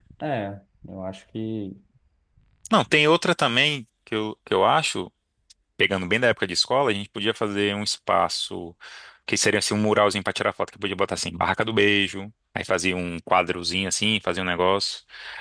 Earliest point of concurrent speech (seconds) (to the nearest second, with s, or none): none